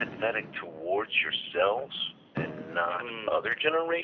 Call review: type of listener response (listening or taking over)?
listening